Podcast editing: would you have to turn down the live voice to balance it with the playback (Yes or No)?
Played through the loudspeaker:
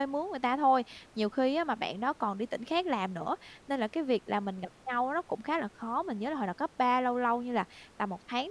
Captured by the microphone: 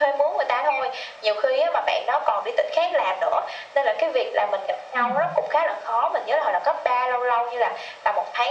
No